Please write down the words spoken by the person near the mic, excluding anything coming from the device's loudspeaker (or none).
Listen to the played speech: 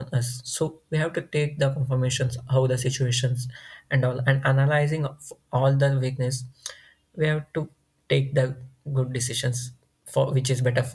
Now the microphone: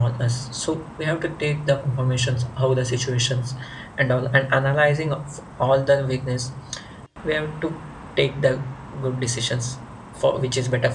none